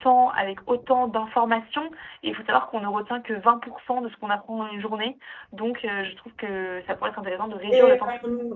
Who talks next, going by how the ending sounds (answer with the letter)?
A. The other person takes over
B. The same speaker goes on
A